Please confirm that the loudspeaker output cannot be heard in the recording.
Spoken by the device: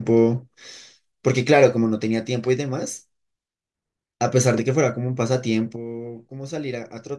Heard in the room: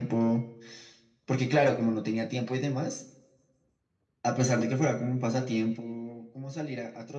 No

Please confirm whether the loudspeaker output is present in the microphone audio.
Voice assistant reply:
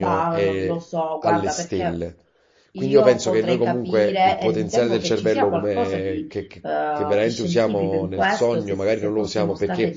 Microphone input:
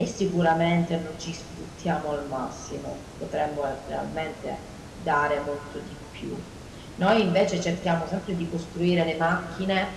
No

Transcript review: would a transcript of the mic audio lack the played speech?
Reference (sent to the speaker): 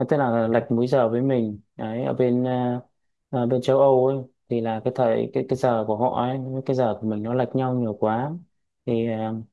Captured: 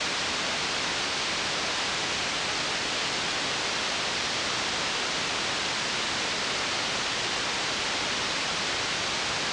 Yes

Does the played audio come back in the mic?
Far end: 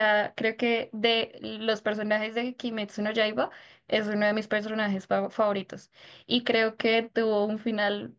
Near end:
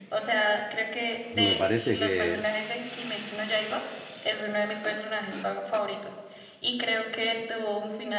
Yes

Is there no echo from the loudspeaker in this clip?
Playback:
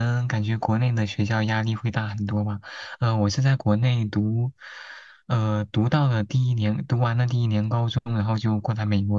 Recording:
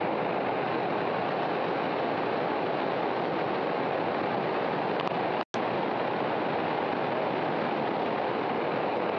Yes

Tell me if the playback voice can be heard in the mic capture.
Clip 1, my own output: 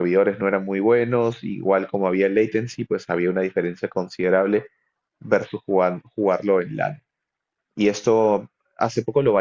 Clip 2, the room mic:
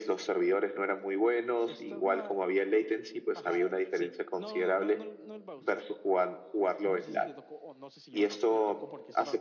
Yes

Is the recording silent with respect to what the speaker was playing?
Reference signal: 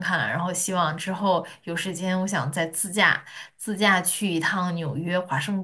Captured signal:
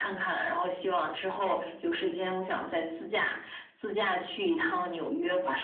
No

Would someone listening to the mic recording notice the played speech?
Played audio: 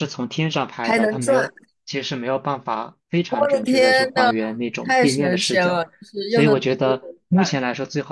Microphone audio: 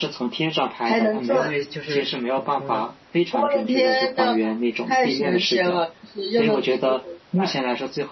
Yes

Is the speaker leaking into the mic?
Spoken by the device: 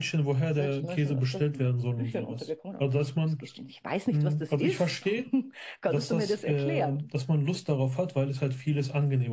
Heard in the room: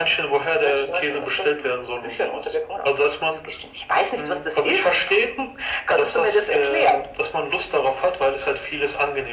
Yes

